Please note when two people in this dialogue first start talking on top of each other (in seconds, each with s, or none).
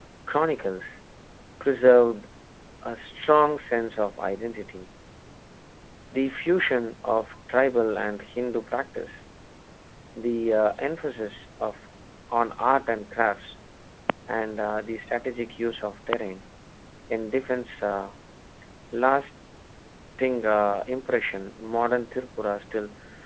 none